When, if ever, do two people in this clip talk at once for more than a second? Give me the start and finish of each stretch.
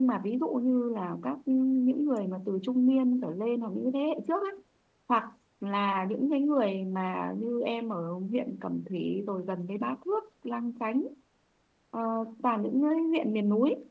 none

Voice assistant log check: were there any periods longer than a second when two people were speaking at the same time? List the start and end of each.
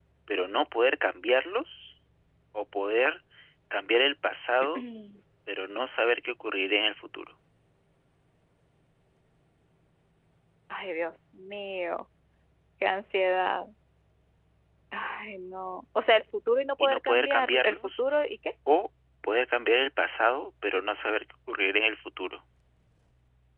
16.8-18.0

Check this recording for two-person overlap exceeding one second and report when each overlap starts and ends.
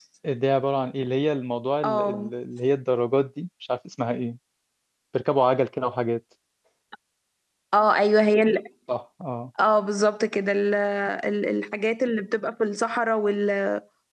none

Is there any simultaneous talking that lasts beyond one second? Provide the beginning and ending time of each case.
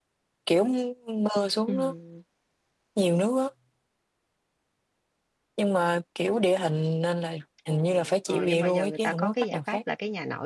7.7-9.8

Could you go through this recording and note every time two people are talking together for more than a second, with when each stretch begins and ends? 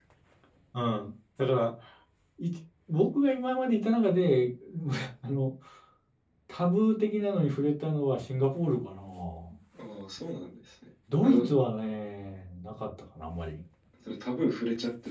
none

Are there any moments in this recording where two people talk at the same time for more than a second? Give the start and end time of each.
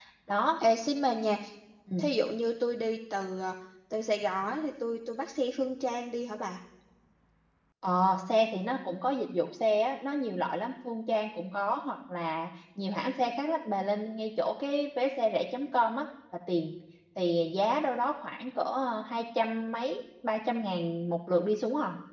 none

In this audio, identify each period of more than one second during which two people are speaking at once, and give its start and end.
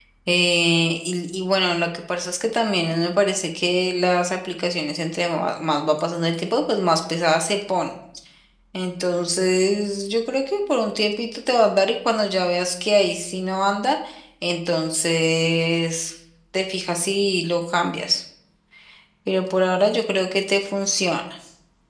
none

